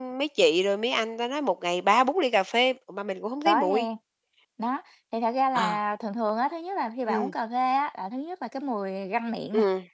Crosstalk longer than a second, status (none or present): none